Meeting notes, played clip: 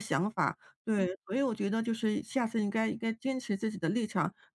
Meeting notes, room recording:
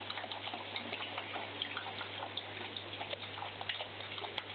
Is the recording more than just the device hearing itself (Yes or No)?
No